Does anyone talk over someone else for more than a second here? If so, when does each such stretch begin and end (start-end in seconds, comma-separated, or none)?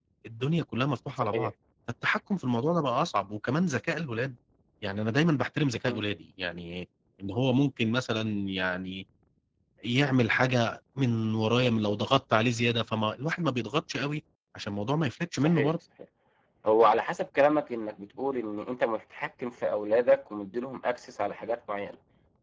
none